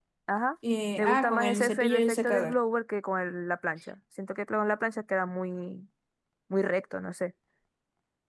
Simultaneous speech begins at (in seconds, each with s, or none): 1.0 s